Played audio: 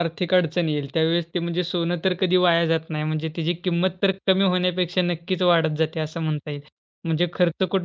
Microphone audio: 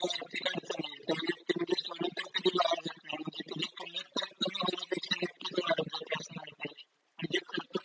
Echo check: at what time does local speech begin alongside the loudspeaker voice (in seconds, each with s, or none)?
none